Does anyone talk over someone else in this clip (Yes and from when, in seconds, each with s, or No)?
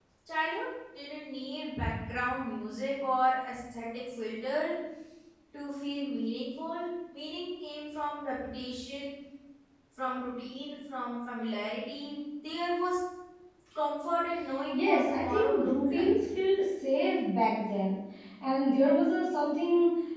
Yes, from 14.7 s